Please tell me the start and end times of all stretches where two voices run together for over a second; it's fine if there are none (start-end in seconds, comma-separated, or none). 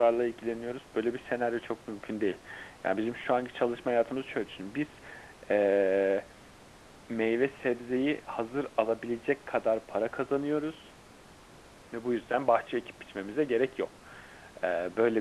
none